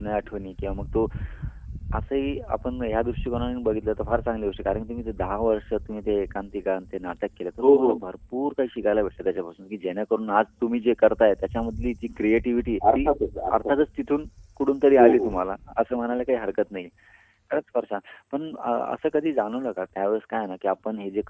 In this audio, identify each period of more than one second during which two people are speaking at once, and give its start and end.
none

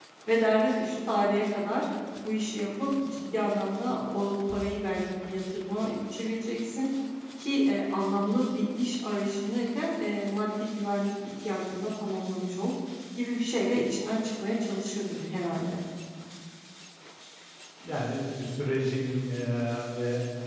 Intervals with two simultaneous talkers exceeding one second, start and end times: none

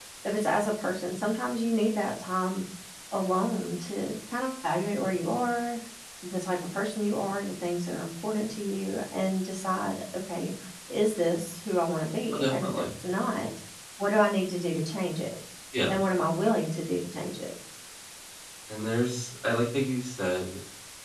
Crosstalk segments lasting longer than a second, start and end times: none

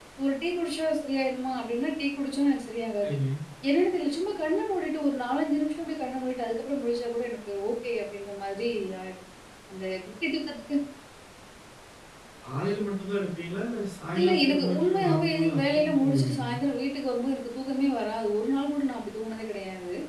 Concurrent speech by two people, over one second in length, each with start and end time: 14.2-16.5

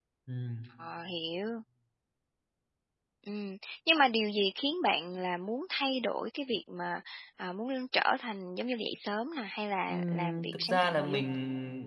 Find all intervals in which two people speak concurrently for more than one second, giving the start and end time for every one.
9.9-11.2

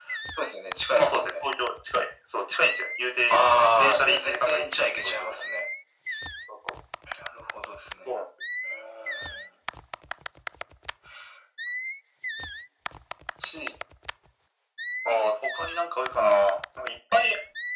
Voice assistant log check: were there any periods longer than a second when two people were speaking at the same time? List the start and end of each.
3.8-5.3

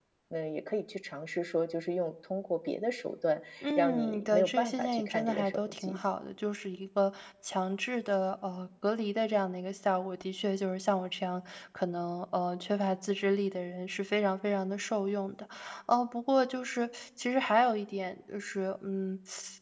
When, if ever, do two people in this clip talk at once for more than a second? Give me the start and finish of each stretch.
3.6-6.0

